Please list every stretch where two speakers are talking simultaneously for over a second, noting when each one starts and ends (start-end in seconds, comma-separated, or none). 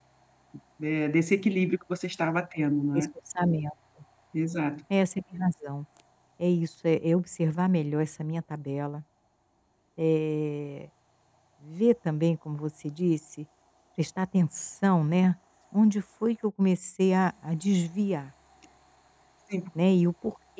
none